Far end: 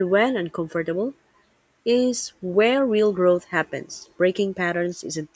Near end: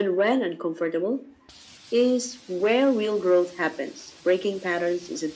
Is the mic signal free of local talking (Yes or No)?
Yes